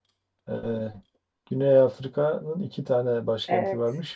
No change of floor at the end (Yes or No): Yes